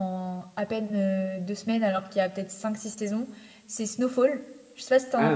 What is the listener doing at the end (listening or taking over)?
taking over